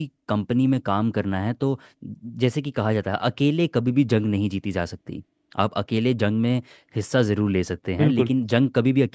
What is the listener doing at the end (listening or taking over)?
listening